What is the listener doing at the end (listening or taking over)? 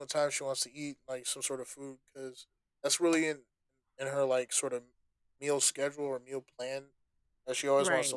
listening